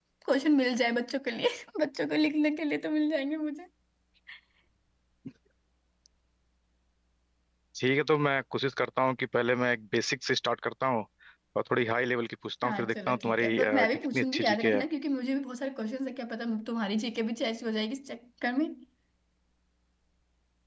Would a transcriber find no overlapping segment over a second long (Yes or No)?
No